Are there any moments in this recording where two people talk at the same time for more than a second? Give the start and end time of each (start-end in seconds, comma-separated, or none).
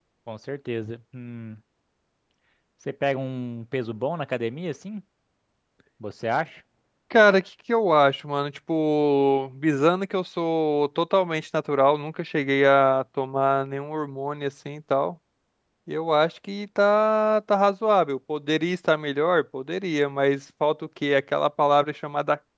none